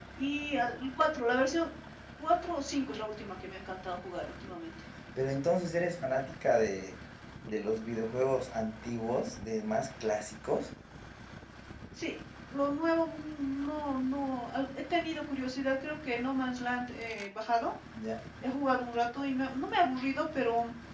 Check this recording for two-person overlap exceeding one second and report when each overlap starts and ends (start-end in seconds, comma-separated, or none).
none